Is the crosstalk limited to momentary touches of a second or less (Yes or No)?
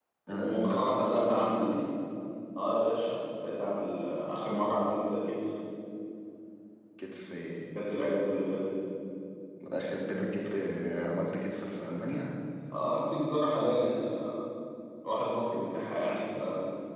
No